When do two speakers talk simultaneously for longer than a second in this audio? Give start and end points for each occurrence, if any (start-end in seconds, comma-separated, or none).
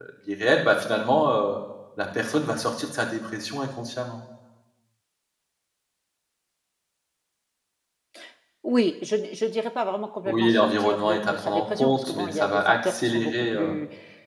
10.2-13.8